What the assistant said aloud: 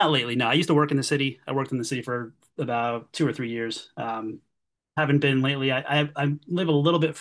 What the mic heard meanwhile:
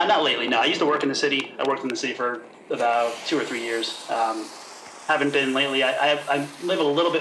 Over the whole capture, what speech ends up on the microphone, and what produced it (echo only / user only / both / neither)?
echo only